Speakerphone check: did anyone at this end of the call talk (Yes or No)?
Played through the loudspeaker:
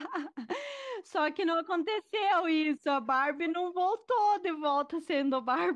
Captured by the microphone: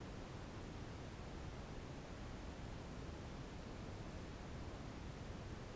No